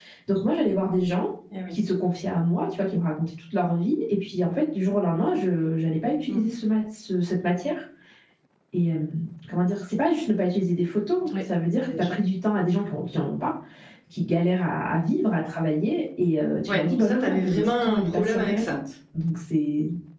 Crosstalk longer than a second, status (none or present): present